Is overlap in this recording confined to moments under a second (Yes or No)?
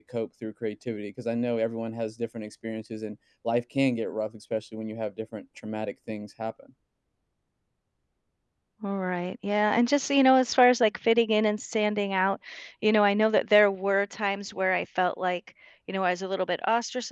Yes